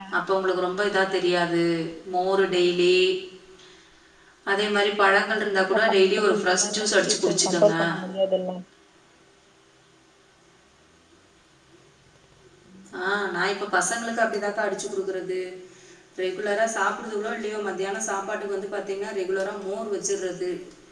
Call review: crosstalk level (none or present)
present